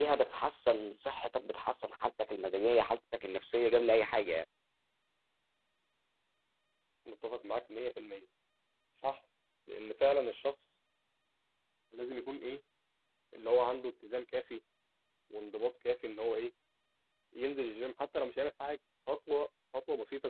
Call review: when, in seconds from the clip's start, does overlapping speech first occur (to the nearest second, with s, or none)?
none